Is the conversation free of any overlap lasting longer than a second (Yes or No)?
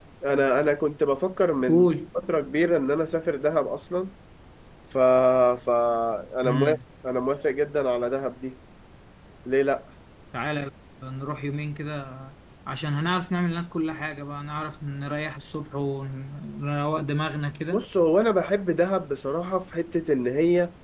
Yes